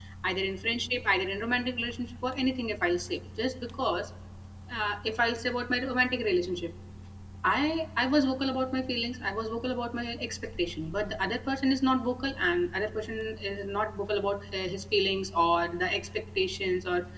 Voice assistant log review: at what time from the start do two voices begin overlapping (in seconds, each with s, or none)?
none